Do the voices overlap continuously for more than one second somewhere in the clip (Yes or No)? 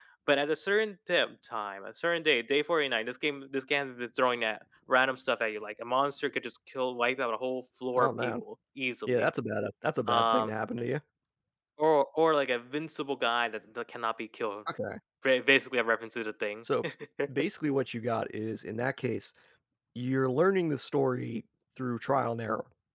No